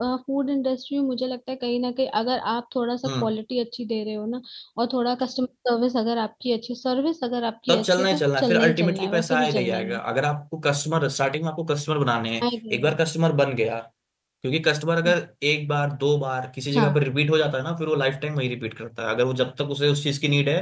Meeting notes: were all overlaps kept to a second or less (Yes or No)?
No